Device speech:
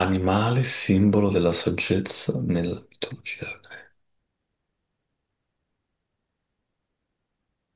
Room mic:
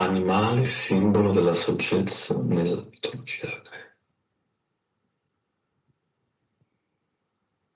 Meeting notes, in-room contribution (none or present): none